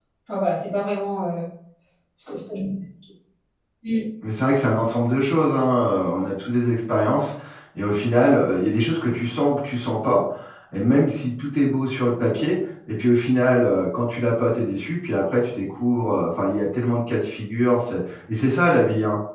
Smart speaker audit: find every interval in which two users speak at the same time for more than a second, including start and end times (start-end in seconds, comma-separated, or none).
none